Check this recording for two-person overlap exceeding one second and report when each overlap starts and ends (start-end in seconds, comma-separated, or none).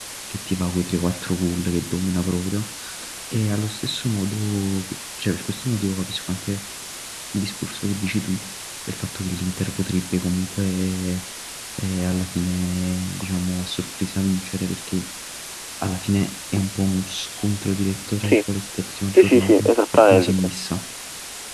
19.1-20.5